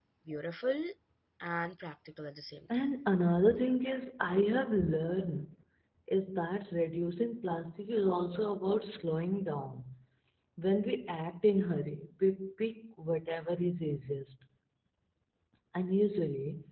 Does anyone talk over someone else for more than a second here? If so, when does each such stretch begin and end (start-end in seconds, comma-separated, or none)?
none